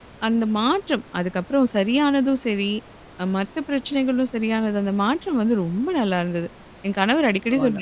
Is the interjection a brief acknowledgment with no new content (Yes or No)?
Yes